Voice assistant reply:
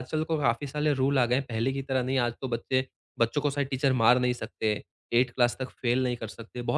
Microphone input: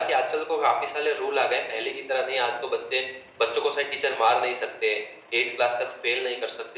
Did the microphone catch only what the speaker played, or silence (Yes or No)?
Yes